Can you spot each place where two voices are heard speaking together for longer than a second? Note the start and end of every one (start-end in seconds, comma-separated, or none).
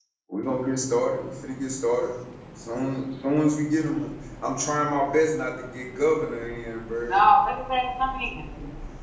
none